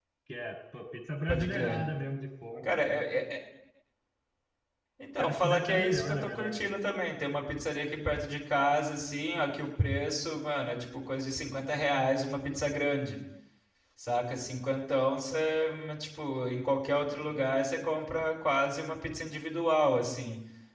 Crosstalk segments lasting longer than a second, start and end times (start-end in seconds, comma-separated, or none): 5.2-6.6